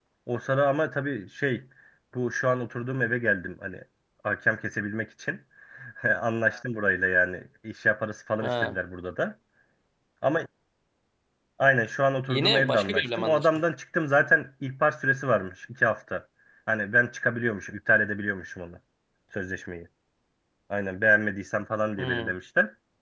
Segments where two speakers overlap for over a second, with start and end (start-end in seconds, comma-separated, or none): 12.3-13.5